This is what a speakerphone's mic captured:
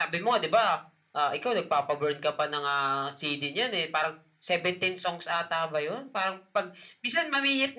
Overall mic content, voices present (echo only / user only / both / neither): echo only